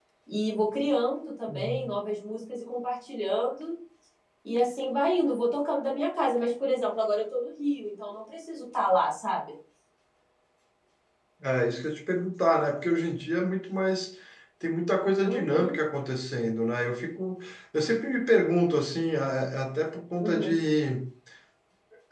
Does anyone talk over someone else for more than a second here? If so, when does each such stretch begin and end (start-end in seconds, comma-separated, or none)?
none